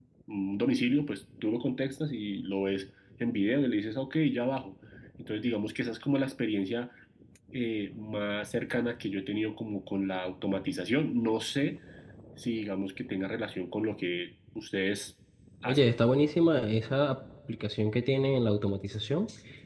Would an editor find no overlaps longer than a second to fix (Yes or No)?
Yes